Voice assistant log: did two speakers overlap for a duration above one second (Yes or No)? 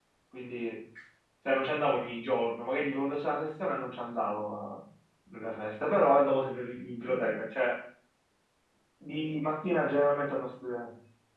No